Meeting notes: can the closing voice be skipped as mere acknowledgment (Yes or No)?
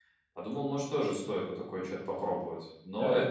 No